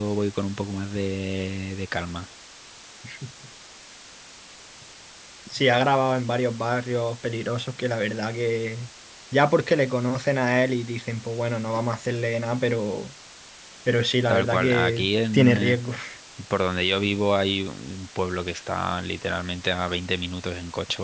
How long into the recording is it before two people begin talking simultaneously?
14.3 s

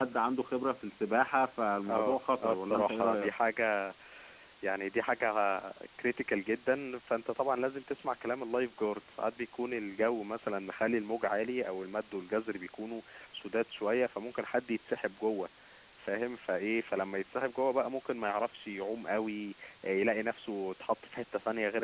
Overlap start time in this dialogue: 1.9 s

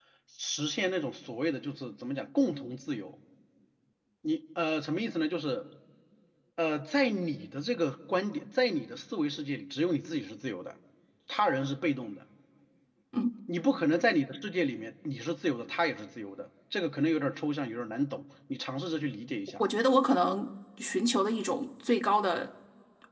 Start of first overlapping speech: none

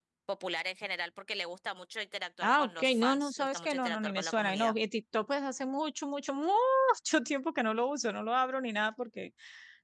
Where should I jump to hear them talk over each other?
2.4 s

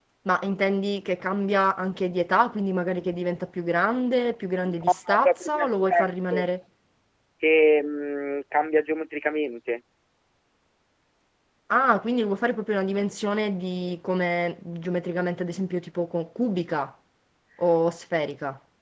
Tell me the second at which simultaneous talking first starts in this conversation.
4.6 s

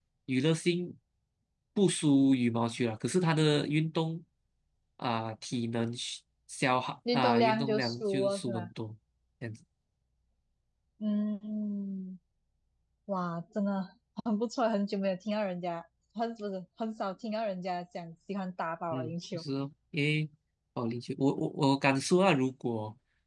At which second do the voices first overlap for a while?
7.1 s

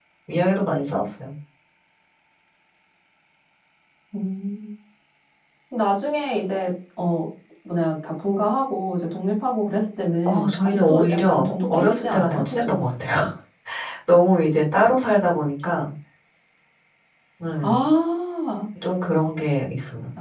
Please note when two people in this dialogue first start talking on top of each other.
10.2 s

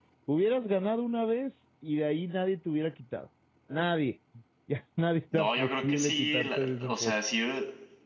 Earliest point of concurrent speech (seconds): 5.3 s

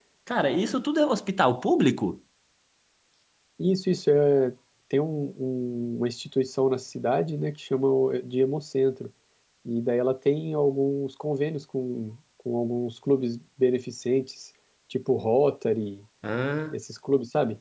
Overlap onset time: none

